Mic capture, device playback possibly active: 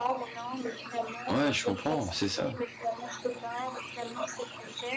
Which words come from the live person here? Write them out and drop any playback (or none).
Ouais, je comprends, c'est ça.